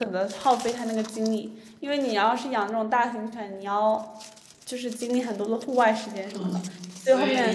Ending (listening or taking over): taking over